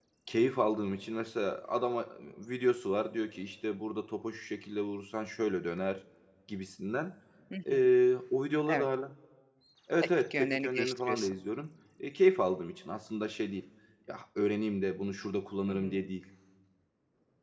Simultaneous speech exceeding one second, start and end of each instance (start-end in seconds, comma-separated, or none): 10.0-11.3